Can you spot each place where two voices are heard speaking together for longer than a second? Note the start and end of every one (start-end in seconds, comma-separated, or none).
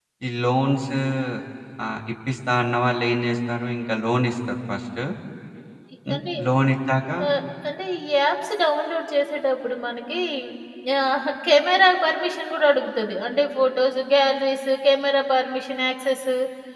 none